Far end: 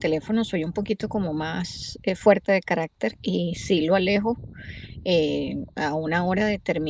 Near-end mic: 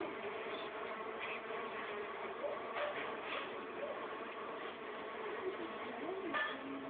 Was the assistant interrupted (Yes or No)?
No